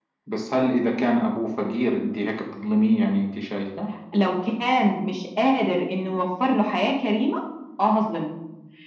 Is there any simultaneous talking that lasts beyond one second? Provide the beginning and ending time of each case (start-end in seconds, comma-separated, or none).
none